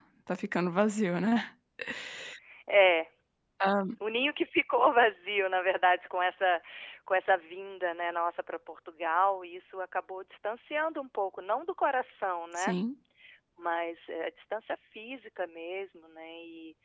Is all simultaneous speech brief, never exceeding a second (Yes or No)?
Yes